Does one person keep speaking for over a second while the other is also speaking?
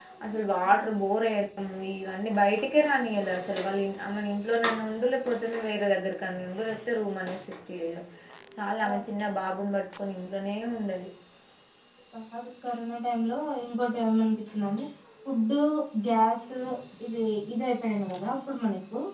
No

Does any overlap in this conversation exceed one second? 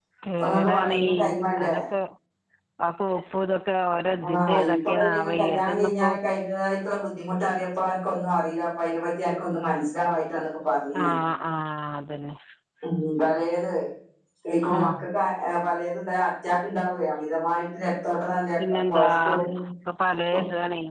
Yes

